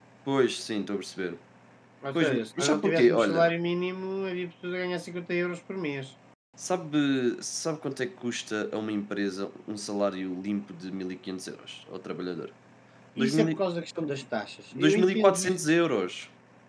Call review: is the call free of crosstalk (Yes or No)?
No